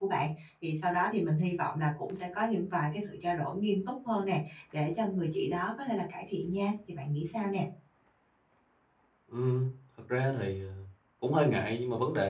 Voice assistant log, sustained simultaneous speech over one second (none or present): none